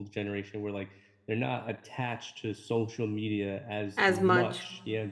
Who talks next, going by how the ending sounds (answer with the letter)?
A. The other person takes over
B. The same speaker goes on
B